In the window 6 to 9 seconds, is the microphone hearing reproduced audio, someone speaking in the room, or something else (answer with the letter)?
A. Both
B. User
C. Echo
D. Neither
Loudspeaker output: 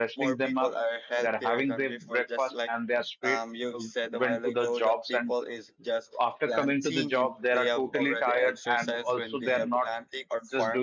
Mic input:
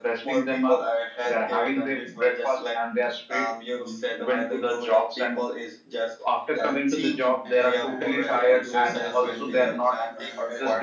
A